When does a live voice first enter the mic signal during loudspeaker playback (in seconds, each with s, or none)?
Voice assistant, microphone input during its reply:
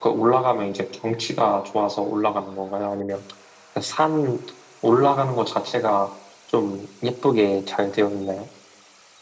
none